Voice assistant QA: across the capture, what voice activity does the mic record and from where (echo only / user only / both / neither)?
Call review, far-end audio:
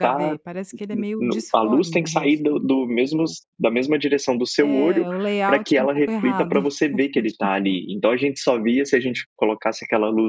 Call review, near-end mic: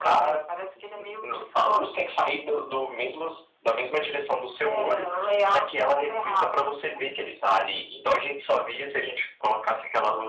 echo only